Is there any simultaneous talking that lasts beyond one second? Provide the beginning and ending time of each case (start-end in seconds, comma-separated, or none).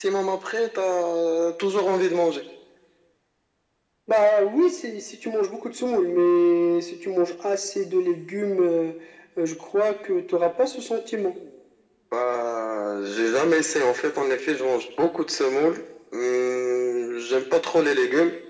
none